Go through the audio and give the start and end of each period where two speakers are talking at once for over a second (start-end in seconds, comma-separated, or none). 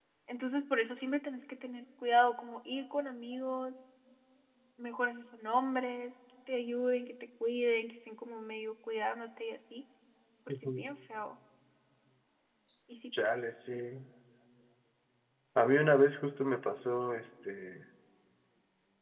none